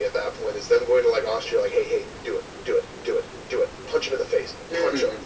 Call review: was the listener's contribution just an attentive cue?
No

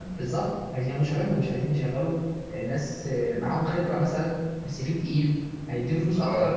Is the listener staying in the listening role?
Yes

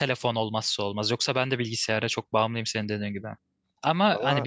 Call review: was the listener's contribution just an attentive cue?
Yes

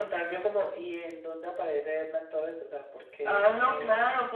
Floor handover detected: Yes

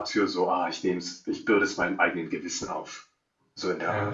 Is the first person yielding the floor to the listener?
Yes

